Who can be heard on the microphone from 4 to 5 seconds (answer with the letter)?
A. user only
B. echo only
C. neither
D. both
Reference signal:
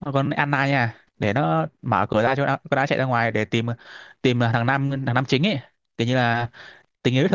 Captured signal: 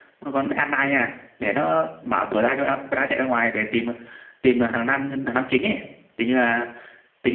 B